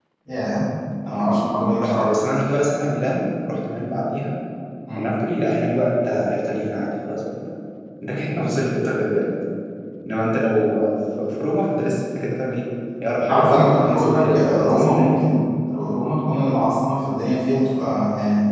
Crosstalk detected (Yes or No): Yes